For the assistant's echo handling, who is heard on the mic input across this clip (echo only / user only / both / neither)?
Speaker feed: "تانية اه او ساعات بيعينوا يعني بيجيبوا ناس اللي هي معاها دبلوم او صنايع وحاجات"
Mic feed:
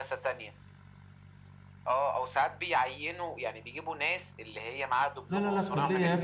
both